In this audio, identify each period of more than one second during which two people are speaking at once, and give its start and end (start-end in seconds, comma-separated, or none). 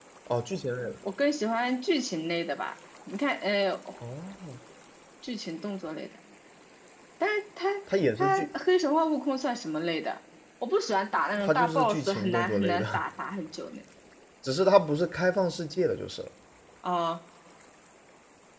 11.4-13.0